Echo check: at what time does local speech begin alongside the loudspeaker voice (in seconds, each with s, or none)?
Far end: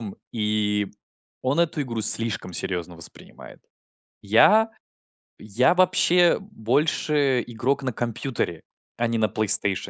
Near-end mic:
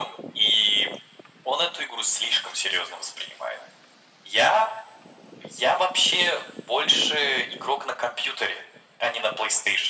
none